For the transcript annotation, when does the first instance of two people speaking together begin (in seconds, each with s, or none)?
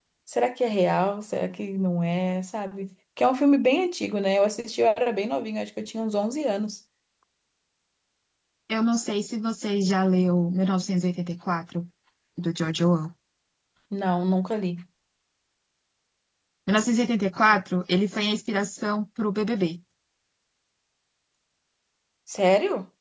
none